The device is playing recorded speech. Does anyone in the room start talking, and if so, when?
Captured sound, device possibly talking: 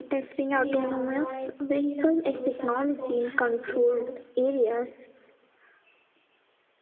0.5 s

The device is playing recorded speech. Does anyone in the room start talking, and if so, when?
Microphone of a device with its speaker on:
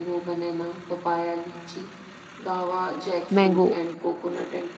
3.3 s

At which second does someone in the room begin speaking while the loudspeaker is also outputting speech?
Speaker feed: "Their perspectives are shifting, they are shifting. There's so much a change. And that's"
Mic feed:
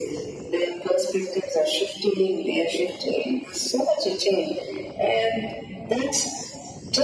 none

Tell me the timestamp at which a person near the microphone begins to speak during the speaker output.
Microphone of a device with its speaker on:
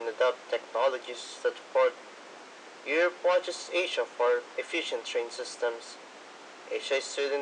none

